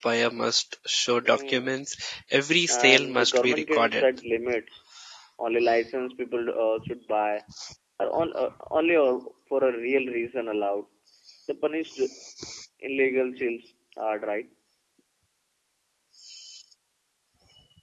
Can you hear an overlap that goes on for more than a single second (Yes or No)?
Yes